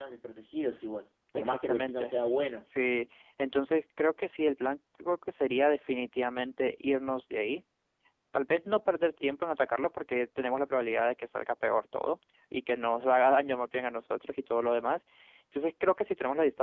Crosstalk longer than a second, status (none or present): present